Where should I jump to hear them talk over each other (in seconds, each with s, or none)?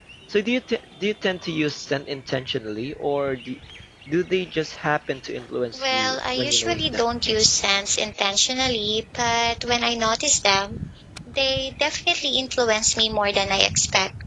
5.8 s